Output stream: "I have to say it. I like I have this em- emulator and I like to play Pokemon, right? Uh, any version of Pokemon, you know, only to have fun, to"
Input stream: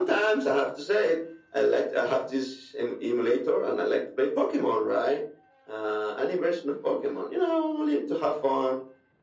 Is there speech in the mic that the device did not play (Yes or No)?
No